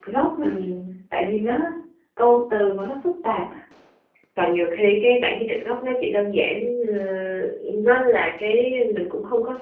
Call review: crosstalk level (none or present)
none